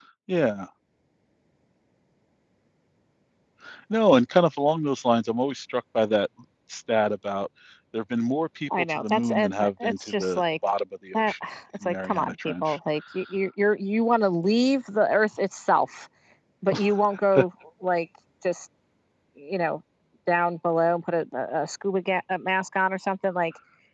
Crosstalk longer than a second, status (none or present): present